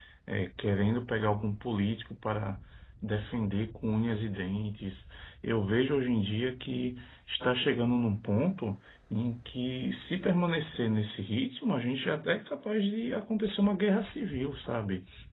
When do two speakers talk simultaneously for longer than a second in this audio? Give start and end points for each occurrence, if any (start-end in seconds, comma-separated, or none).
none